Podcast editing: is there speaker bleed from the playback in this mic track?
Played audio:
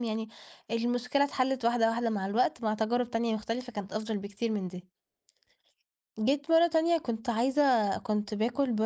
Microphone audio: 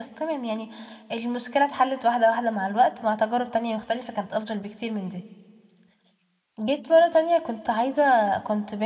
Yes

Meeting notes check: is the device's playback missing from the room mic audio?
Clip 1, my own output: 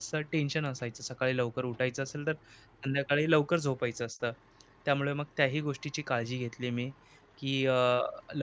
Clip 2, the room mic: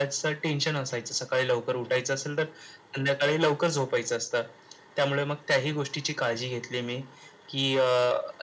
No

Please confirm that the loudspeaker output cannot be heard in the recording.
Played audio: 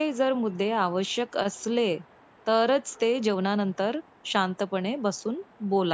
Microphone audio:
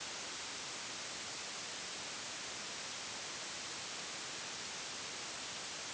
Yes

